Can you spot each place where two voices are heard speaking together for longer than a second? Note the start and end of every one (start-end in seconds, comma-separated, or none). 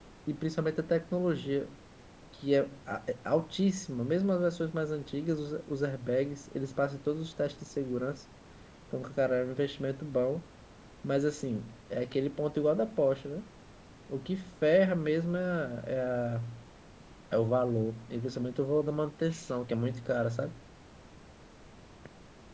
none